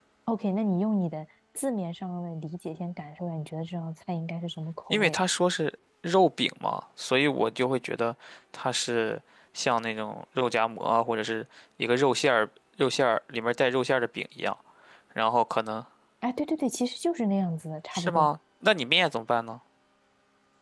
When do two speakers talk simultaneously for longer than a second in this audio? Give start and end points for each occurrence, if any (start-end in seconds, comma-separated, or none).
none